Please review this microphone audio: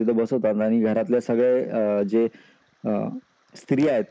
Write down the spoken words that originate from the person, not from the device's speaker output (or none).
none